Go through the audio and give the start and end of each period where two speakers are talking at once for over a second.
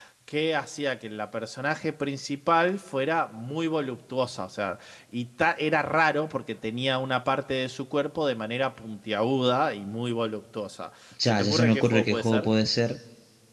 11.2-12.5

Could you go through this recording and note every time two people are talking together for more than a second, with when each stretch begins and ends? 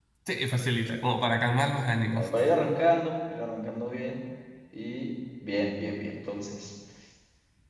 none

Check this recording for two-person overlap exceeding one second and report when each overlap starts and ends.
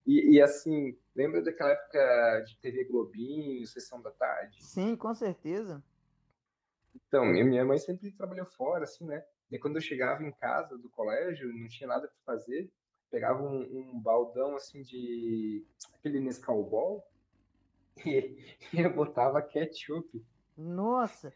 none

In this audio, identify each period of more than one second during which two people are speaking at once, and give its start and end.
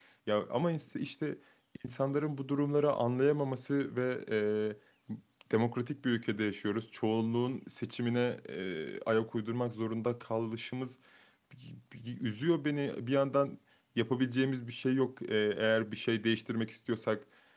none

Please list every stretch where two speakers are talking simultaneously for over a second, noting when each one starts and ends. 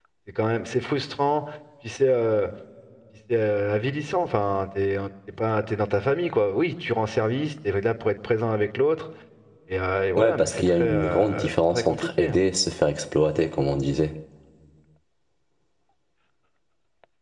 10.2-12.3

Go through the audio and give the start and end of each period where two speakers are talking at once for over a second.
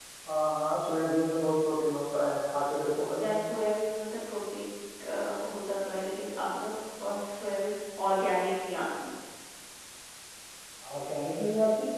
none

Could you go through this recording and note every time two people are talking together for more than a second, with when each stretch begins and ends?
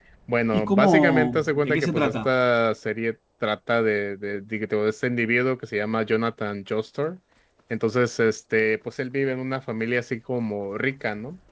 0.5-2.3

